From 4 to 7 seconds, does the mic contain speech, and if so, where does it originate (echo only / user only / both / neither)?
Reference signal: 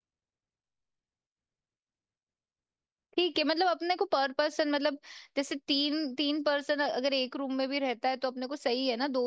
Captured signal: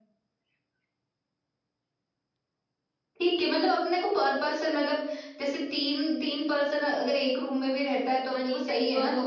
echo only